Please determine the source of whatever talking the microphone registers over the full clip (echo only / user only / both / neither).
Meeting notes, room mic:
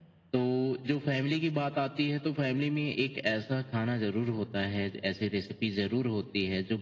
echo only